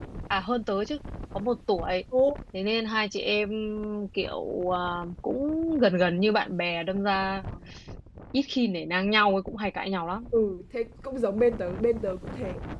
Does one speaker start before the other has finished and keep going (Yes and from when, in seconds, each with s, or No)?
No